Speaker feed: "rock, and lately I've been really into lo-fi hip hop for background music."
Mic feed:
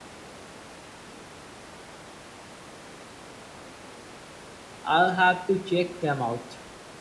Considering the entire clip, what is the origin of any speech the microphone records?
user only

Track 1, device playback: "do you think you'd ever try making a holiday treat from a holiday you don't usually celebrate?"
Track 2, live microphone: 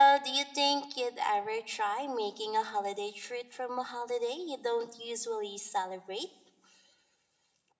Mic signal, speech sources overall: echo only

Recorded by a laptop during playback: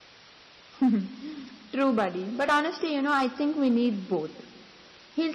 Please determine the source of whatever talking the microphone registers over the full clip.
echo only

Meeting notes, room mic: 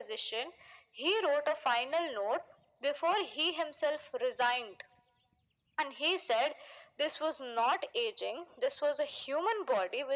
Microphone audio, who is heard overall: echo only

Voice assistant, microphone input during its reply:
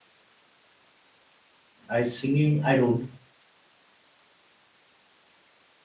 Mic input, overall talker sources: user only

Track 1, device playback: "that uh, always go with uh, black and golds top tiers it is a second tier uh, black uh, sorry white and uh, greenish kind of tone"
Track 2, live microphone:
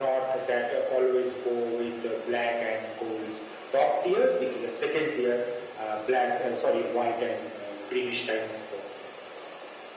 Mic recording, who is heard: echo only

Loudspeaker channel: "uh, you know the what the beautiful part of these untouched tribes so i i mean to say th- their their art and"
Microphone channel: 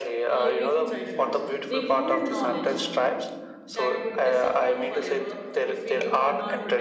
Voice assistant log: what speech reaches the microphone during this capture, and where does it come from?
both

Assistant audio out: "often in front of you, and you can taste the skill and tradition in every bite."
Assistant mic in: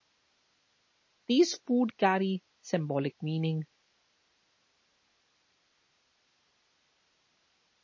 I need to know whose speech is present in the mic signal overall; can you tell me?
user only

